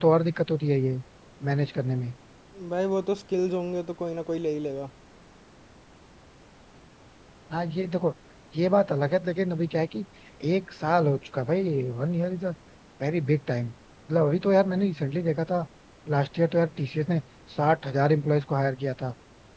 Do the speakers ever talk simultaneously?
No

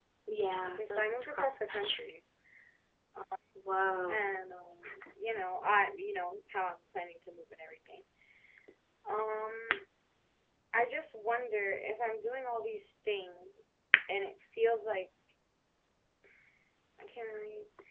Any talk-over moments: Yes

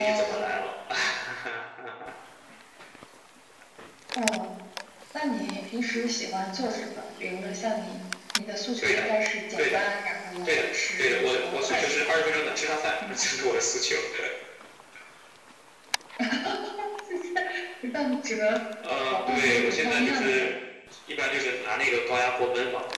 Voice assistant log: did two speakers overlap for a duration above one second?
Yes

